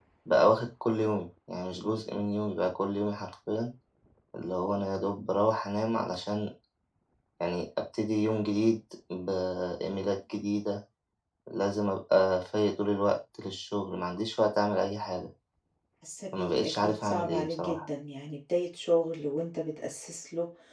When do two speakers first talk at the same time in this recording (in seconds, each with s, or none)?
16.3 s